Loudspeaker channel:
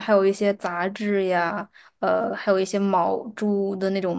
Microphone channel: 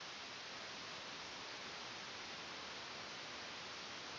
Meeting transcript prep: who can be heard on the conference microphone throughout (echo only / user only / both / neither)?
neither